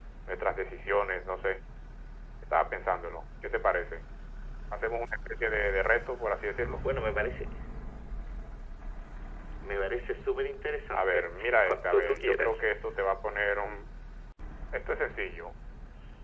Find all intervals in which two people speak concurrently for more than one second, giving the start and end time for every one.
10.9-12.6

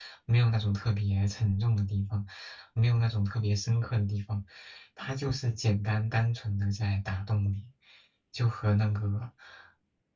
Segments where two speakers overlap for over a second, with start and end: none

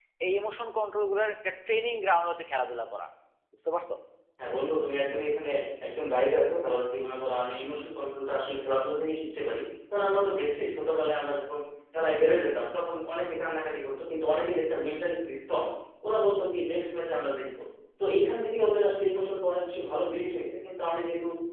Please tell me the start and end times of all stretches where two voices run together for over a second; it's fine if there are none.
none

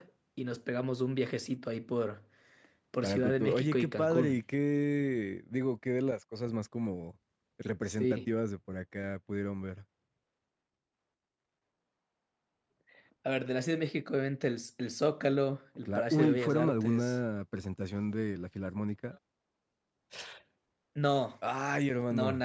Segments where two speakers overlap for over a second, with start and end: 3.0-4.4, 15.8-17.1

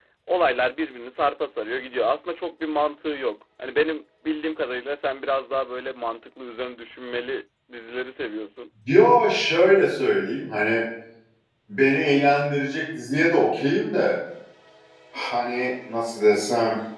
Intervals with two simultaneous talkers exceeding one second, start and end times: none

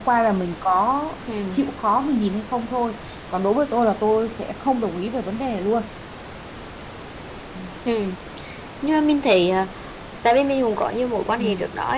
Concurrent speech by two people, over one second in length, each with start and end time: none

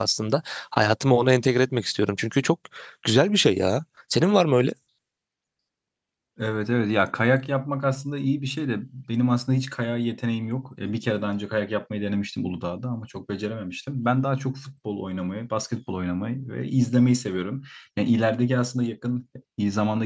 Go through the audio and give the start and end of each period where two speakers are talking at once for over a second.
none

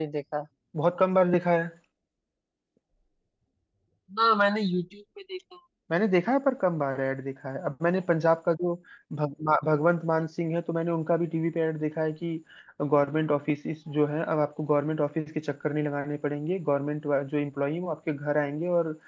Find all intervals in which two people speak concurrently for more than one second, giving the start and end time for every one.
none

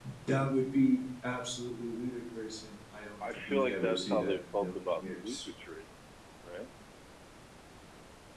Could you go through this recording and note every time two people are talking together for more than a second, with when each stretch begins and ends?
3.2-5.4

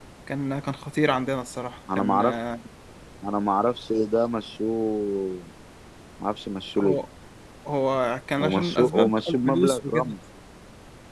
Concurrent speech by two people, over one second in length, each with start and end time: 8.4-10.1

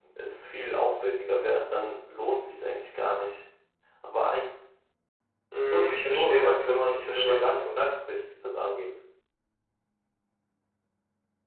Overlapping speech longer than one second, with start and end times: 5.7-7.9

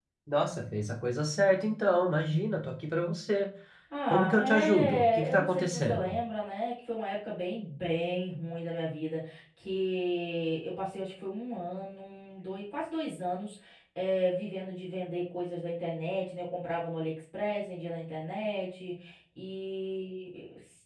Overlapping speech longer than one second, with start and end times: 4.1-6.2

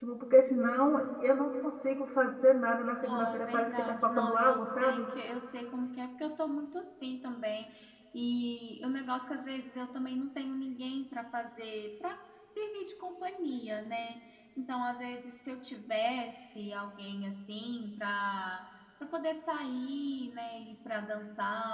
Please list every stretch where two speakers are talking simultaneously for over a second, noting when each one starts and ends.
3.0-5.1

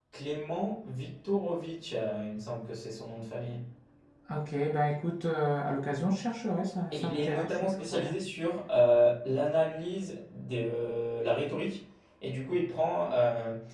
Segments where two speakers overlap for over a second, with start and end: 6.9-8.1

